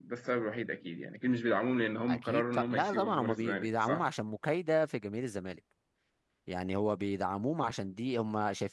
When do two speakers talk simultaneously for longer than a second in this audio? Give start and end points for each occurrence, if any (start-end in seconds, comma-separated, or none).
2.1-4.0